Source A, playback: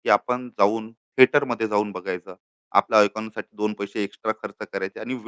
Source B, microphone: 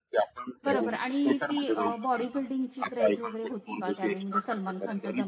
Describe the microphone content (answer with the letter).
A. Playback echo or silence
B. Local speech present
B